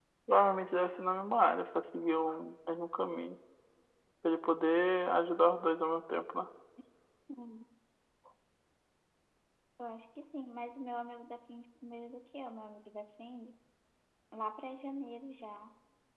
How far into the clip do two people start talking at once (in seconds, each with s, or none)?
none